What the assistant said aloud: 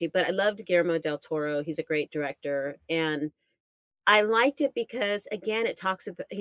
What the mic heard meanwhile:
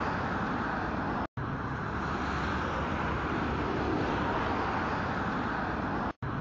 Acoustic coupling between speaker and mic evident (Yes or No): No